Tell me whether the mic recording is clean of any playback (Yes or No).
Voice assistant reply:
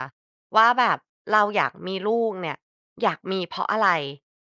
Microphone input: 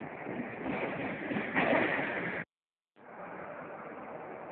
Yes